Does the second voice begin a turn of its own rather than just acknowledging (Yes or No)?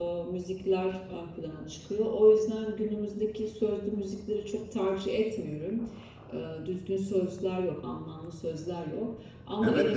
Yes